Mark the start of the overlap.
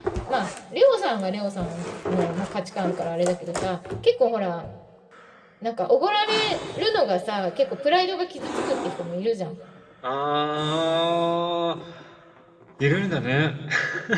none

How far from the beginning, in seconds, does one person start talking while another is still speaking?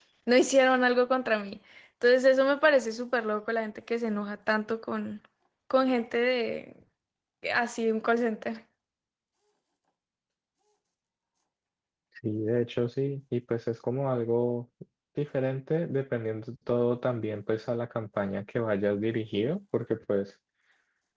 none

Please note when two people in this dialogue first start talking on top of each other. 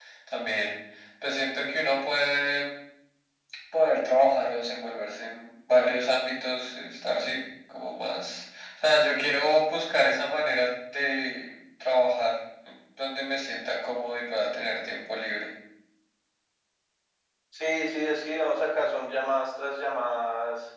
none

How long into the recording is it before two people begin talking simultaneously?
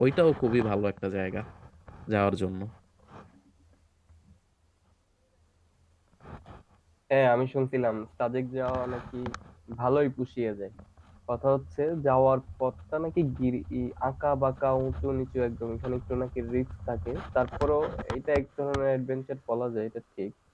none

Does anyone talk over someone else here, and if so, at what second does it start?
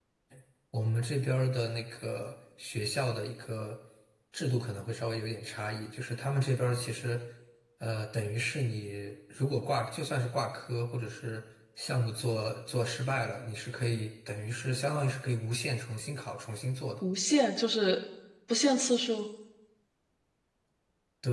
none

